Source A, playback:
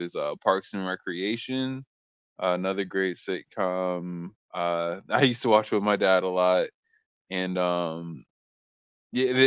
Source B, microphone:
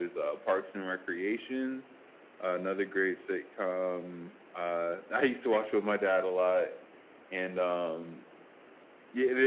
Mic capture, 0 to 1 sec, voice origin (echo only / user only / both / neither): echo only